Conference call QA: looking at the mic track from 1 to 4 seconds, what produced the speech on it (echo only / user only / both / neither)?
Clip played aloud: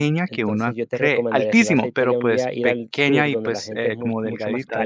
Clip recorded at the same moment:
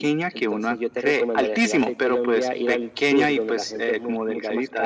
echo only